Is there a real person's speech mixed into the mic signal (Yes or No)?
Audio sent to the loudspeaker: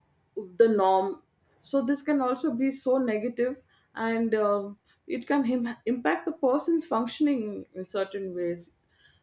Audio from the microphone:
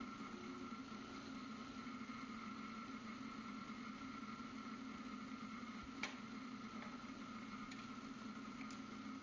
No